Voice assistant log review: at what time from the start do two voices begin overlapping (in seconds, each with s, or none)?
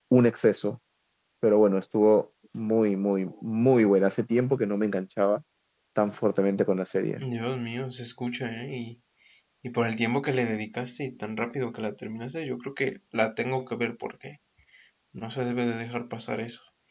none